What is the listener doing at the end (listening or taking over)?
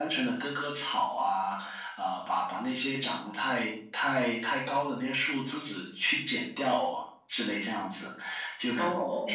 listening